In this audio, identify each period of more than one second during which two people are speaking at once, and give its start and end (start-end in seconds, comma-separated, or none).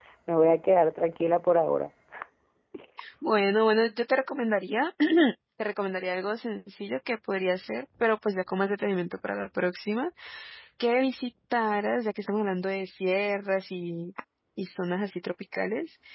none